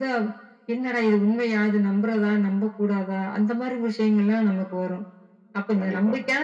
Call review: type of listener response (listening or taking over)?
listening